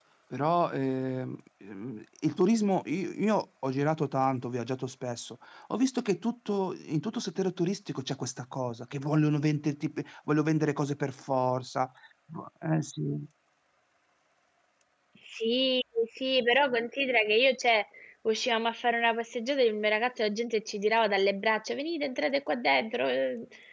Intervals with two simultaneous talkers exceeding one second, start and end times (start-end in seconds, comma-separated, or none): none